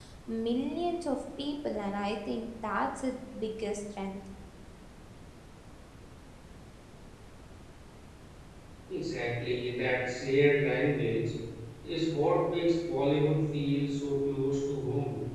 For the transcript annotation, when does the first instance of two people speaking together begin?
none

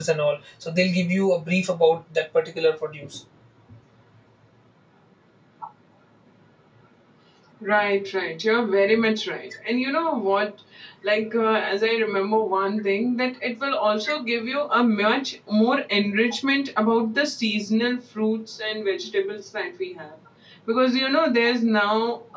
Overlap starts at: none

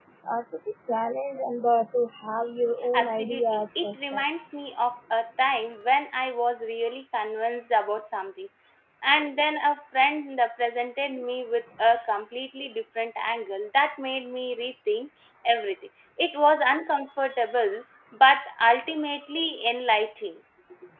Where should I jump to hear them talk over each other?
2.9 s

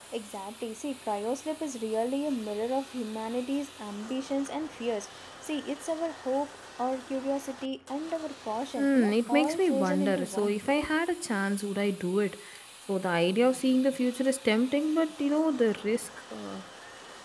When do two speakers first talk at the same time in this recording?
8.8 s

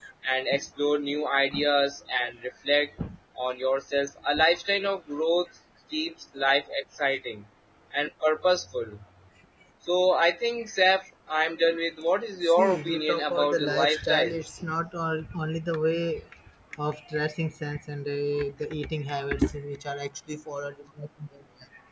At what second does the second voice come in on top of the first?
12.5 s

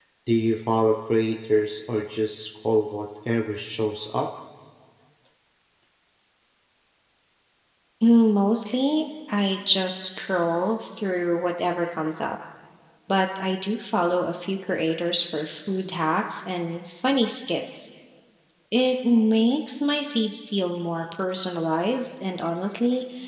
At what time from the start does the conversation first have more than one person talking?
none

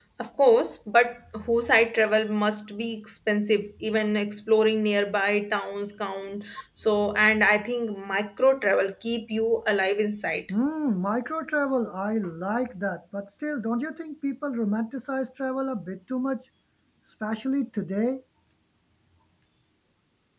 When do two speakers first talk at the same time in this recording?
none

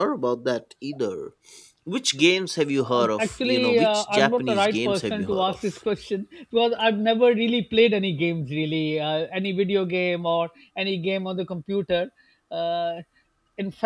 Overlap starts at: 2.8 s

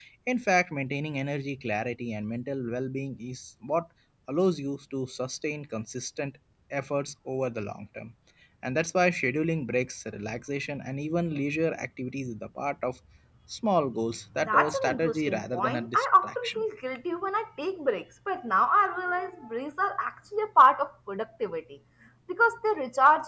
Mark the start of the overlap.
14.4 s

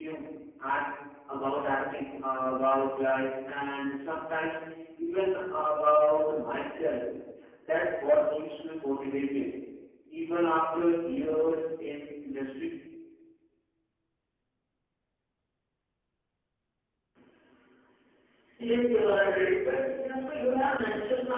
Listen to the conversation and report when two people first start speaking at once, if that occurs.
none

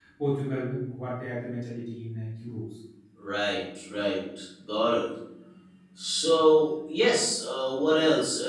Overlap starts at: none

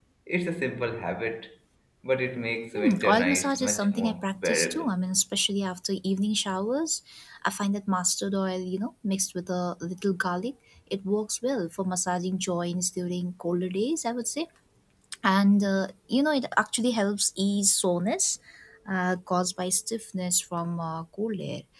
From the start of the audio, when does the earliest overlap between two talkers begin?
2.8 s

